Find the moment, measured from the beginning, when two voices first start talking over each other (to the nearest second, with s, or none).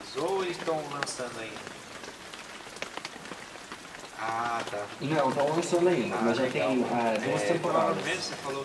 6 s